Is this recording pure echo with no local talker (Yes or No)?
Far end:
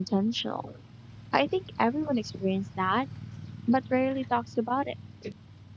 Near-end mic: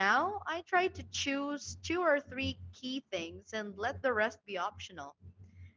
No